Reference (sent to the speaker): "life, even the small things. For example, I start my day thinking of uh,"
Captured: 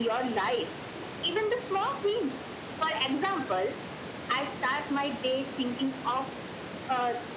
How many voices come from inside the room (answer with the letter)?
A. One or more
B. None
B